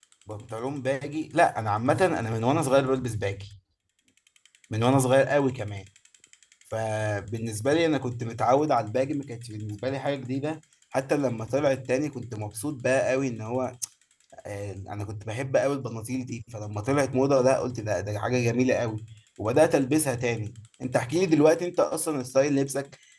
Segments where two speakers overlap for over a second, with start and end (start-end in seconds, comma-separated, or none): none